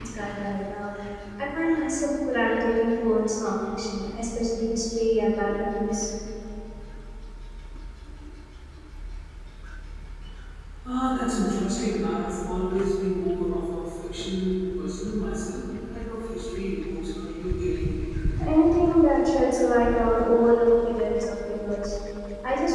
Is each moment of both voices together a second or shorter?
Yes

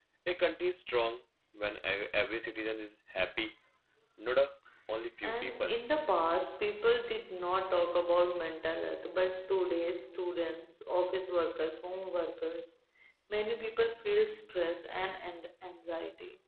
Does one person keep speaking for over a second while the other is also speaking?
No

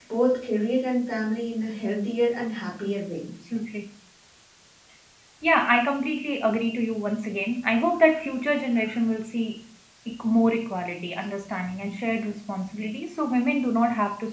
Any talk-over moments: No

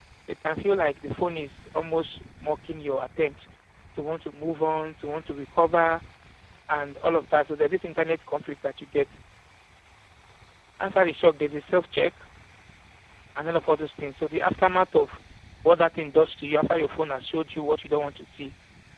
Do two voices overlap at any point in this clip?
No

